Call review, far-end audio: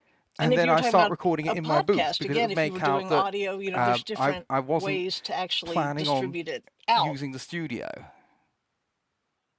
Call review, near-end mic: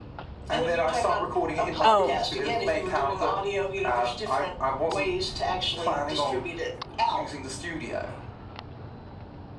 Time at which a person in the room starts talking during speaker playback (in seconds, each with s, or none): 1.8 s